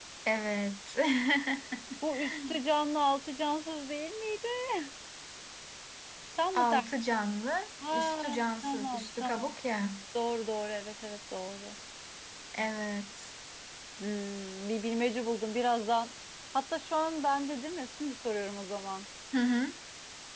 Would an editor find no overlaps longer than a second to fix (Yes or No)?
No